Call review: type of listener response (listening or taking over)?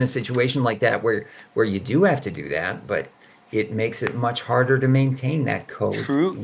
taking over